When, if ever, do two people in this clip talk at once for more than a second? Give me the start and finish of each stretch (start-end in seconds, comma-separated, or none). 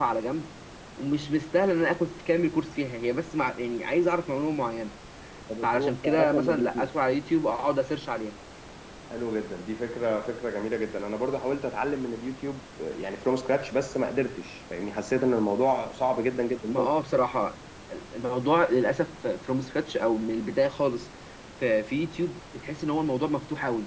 5.6-6.9